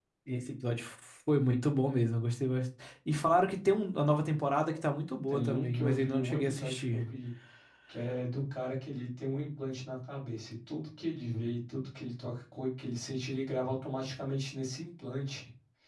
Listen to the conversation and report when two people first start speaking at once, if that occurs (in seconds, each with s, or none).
5.3 s